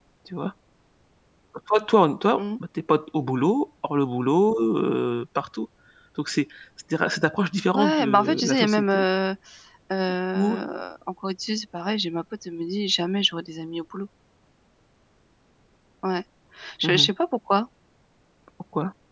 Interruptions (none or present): present